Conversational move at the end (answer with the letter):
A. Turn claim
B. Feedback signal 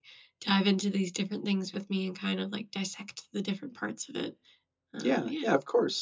A